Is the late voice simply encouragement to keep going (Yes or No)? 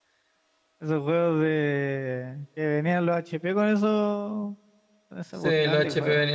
No